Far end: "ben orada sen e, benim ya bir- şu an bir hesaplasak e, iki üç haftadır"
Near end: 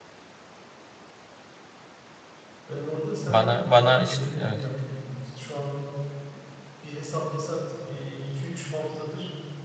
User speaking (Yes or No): Yes